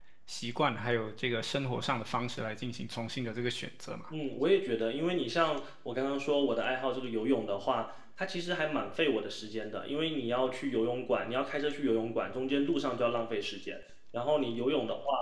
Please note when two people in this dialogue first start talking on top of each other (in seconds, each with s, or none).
none